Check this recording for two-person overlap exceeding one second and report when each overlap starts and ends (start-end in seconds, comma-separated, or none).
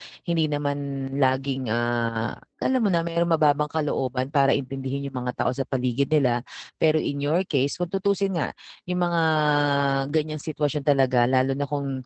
none